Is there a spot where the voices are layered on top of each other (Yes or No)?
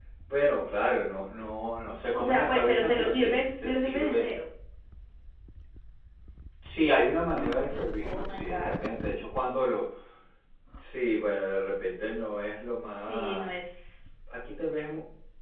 Yes